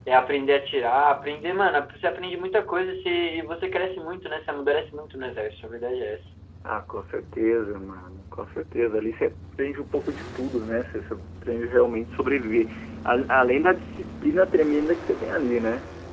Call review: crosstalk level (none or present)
none